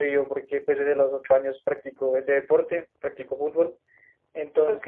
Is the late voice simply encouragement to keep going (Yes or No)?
Yes